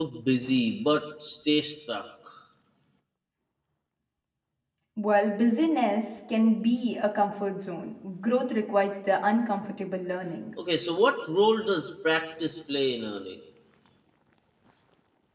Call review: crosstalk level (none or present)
none